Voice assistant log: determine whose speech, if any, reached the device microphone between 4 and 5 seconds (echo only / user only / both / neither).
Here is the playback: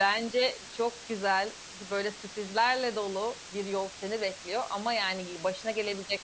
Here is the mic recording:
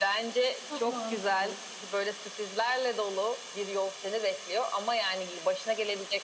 echo only